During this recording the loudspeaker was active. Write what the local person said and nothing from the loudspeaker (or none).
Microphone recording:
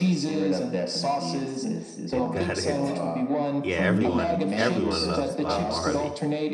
It got it. Yeah, everyone everyone loves Bob Marley.